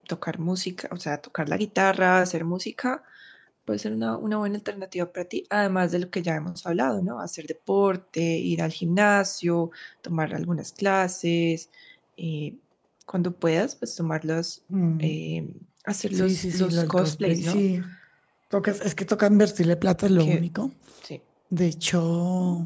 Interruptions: present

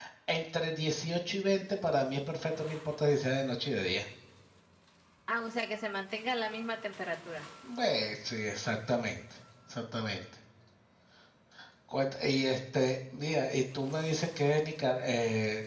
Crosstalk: none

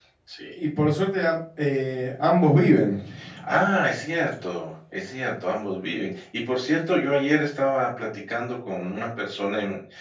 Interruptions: none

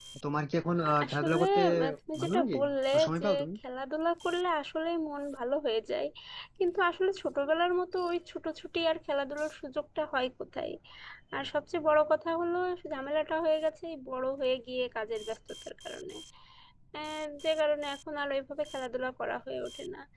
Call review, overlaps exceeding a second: present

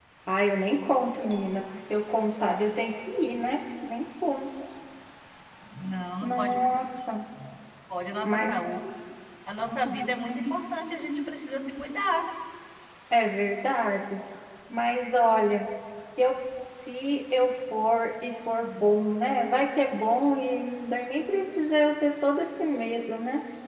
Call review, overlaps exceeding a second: none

